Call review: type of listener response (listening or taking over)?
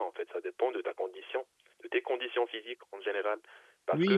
listening